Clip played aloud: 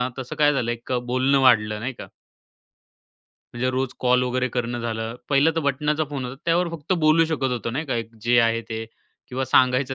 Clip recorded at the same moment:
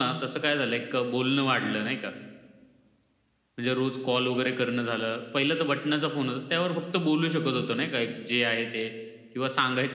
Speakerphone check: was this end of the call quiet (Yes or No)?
Yes